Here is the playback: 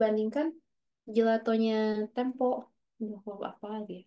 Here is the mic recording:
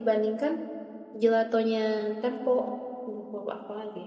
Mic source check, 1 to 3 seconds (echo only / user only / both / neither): echo only